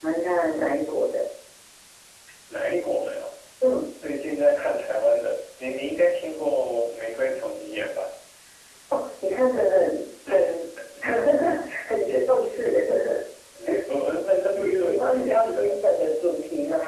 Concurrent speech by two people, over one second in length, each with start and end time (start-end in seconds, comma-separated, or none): 14.5-15.8